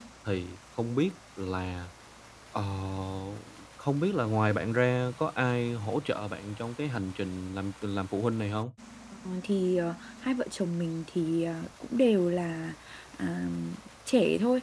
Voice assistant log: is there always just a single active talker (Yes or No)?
Yes